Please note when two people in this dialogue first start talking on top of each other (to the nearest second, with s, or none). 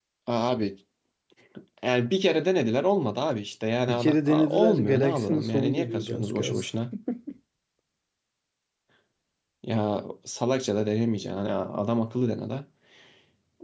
4 s